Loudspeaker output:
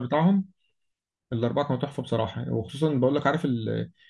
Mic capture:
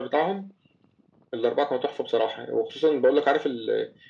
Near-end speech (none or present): none